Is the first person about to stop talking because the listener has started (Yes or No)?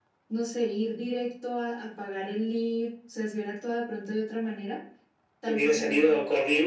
Yes